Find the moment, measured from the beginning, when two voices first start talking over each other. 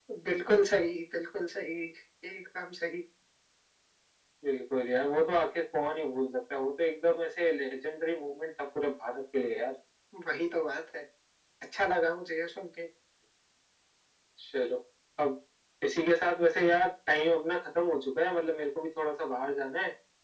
none

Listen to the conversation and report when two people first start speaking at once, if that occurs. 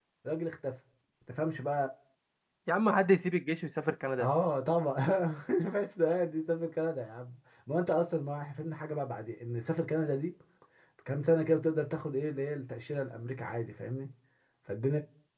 none

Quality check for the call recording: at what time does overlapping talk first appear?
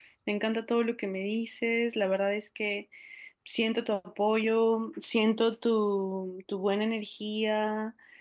none

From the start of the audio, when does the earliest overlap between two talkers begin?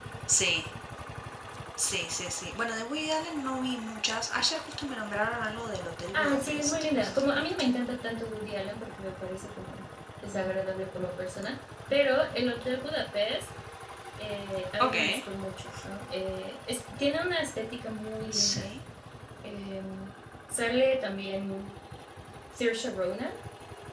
6 s

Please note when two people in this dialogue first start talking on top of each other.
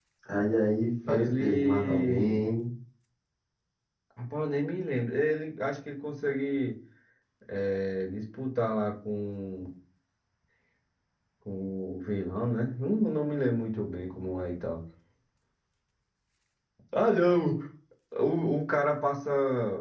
1 s

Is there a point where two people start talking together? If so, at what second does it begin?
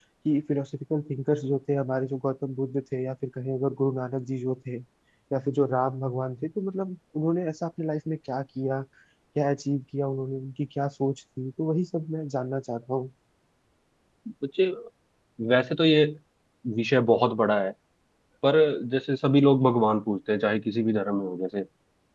none

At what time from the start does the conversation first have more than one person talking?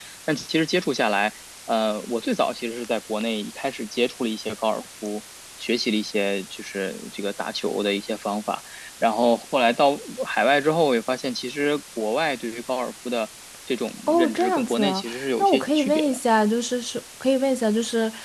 14 s

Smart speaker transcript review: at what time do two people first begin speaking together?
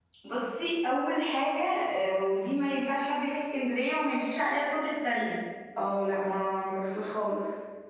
none

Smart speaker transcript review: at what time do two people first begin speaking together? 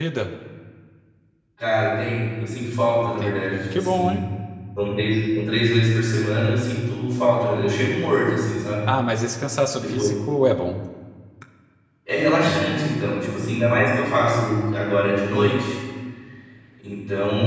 3 s

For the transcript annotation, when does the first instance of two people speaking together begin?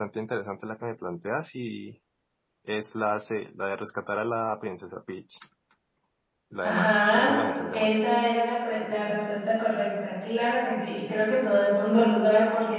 7 s

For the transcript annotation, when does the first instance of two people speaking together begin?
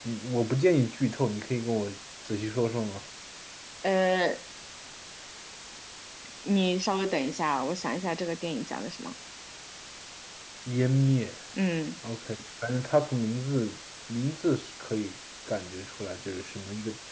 none

